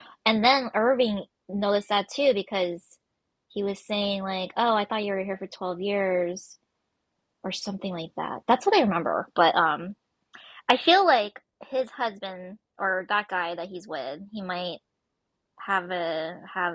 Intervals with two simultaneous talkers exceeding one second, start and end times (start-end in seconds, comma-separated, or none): none